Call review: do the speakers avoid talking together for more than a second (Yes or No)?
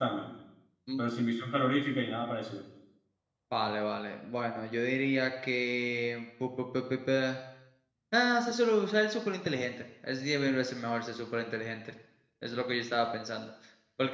Yes